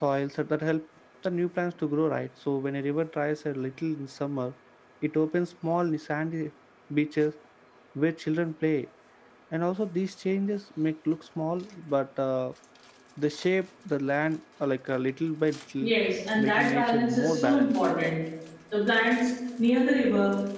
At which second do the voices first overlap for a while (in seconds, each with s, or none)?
16.4 s